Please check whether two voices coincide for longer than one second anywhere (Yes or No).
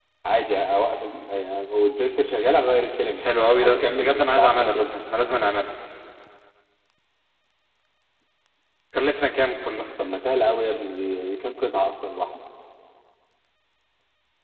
Yes